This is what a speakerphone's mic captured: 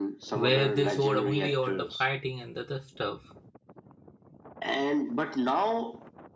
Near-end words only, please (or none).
where they showed only or the fighting and the other stuff